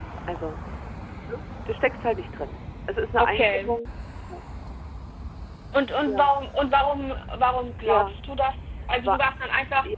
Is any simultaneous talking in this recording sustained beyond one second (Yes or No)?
No